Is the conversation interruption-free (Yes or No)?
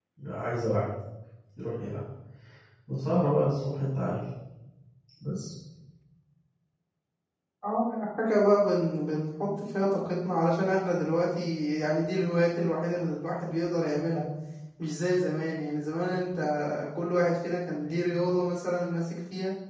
Yes